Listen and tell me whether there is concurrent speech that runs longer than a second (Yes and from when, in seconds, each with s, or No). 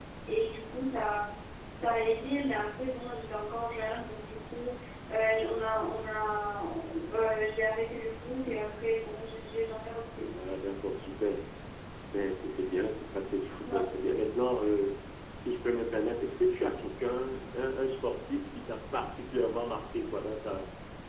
No